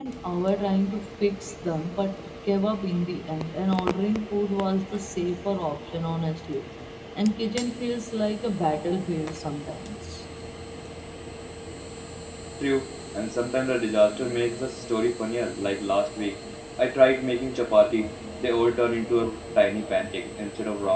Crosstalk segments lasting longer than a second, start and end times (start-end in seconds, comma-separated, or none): none